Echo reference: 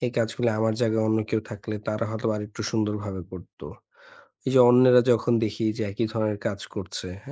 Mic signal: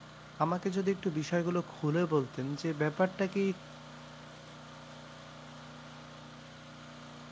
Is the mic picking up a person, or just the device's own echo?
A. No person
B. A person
B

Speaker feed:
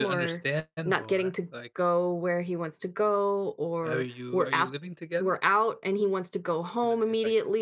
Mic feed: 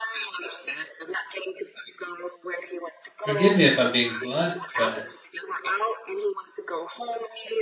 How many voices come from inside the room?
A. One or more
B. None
A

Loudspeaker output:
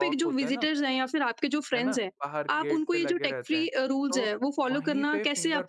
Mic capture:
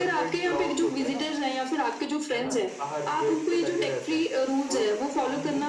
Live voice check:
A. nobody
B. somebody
A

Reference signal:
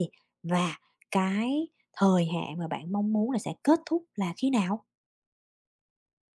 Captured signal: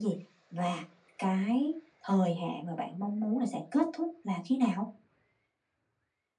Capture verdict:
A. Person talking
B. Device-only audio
B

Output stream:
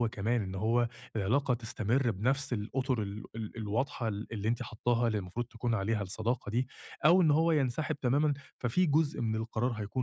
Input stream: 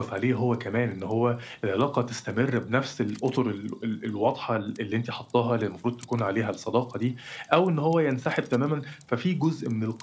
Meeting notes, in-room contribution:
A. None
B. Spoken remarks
A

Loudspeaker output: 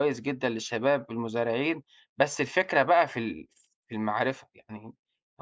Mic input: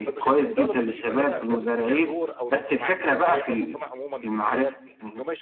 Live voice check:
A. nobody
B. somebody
B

